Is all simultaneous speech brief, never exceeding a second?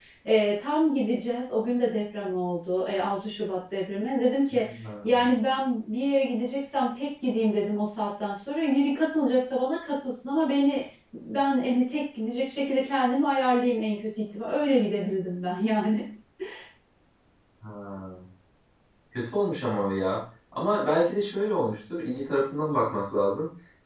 Yes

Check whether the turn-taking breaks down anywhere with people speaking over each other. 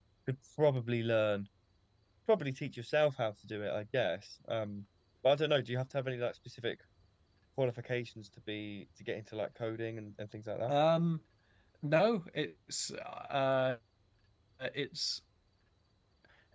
No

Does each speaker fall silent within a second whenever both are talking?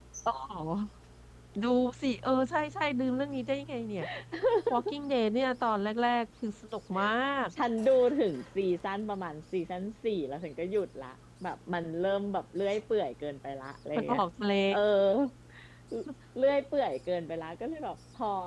Yes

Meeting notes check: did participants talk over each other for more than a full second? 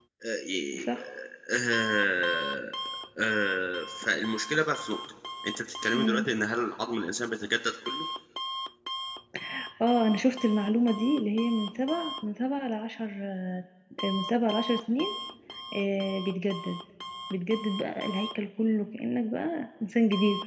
No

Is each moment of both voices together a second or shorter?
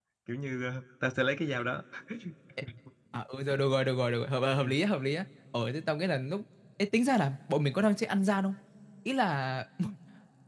Yes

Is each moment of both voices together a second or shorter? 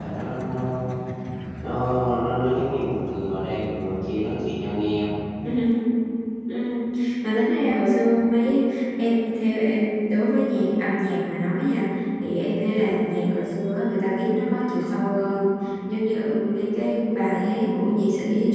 Yes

